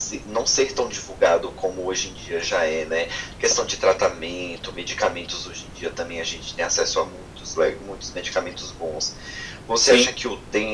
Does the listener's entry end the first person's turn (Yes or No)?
No